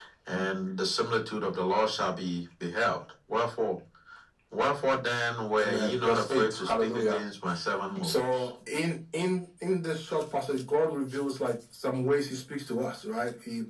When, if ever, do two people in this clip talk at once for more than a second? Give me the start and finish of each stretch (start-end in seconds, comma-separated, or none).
5.6-7.2